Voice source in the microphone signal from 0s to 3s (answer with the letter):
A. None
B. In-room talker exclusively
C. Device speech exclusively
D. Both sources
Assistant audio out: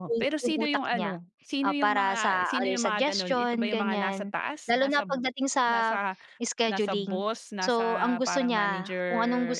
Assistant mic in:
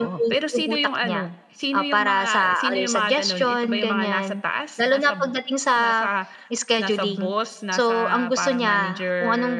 C